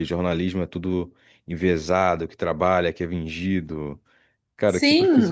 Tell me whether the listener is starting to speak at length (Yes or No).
Yes